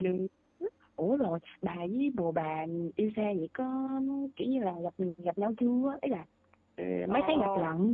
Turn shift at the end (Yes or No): Yes